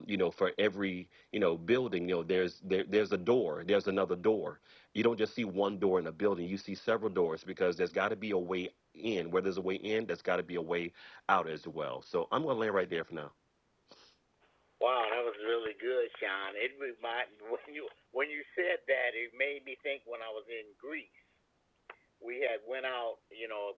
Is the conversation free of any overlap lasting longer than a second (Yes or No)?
Yes